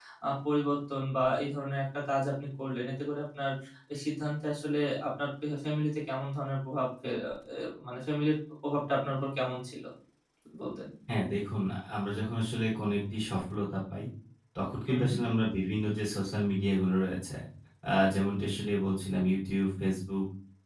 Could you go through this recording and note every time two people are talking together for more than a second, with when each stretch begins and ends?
none

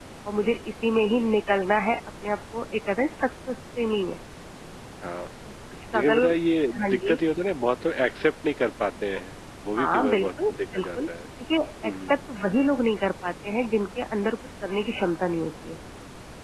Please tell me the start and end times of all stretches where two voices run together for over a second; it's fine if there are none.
9.8-11.1

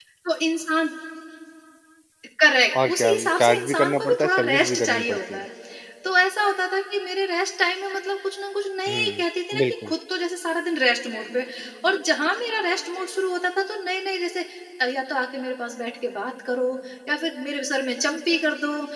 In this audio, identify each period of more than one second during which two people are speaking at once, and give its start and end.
2.8-5.4

